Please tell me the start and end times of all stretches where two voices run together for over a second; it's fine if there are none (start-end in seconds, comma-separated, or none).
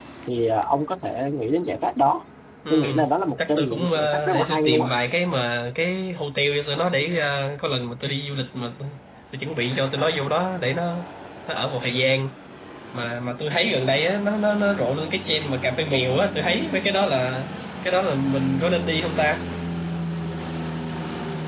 3.4-4.9